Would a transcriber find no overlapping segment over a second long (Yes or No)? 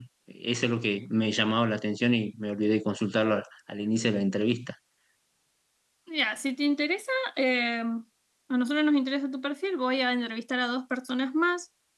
Yes